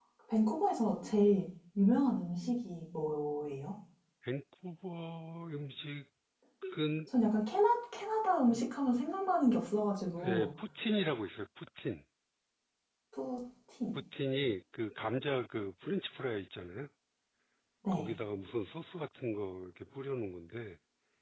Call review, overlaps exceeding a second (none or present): none